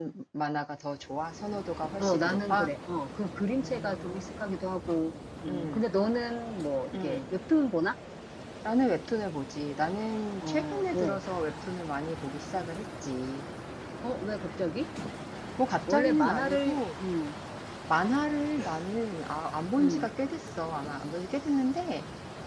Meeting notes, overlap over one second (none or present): present